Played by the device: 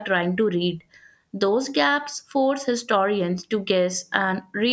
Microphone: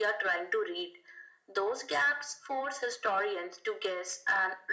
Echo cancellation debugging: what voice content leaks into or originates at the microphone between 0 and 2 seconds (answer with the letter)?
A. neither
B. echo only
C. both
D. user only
B